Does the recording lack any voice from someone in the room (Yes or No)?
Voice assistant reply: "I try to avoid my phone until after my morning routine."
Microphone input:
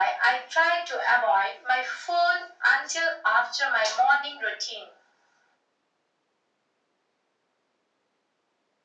Yes